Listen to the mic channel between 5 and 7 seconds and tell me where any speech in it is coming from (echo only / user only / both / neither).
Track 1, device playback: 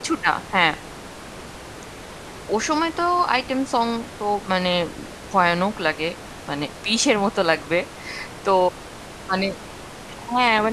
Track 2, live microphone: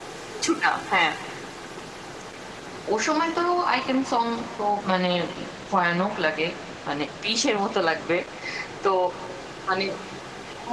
echo only